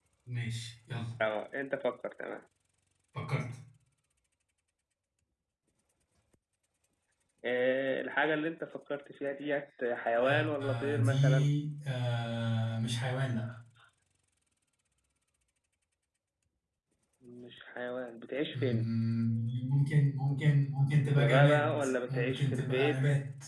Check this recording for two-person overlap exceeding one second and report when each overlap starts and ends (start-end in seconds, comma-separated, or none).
10.2-11.5, 21.2-23.0